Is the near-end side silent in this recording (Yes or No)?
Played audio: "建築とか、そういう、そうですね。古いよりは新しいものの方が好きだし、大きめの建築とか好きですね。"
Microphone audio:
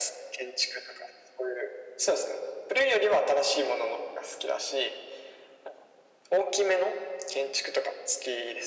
Yes